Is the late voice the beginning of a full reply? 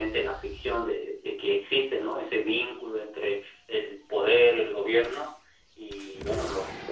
No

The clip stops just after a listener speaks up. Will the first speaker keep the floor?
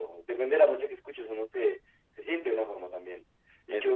Yes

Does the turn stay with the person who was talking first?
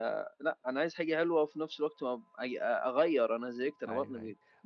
No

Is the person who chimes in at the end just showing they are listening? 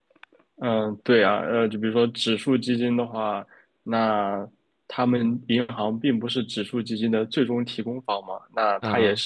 Yes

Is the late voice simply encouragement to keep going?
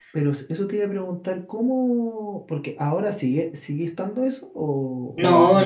No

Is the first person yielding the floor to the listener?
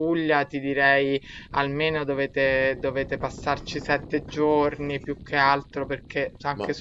No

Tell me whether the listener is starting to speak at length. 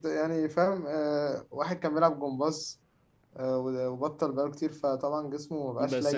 Yes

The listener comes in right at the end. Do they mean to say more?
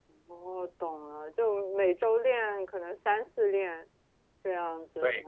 Yes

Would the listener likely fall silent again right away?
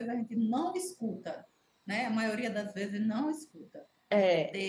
Yes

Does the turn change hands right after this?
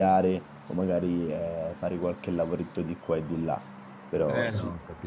Yes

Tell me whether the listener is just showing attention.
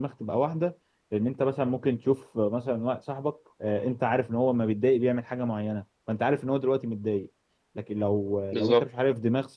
Yes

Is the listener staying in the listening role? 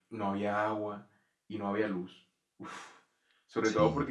Yes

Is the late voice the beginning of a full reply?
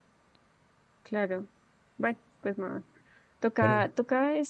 No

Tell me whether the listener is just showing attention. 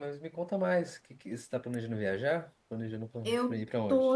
No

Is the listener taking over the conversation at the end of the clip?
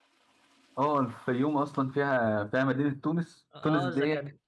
Yes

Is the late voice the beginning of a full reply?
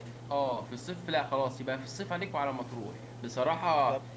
No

